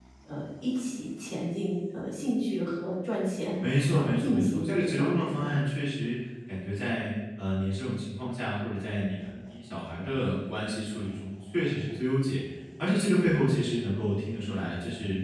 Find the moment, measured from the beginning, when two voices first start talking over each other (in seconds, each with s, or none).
3.6 s